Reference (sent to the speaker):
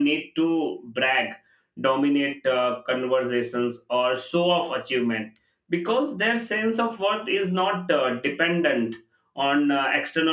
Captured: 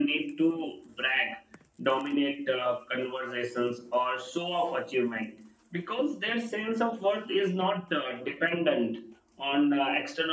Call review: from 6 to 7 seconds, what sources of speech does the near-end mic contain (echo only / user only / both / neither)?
echo only